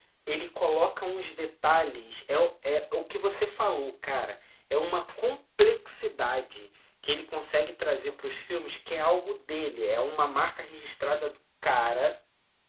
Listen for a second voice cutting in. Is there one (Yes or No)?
No